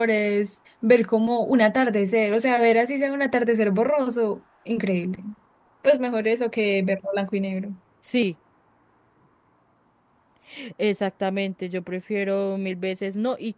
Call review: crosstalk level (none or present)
none